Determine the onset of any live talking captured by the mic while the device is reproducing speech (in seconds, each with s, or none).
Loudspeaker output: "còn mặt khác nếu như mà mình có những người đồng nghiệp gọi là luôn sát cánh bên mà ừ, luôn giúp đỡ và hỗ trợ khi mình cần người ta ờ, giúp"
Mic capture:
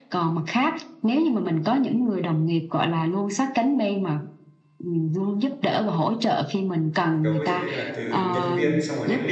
7.2 s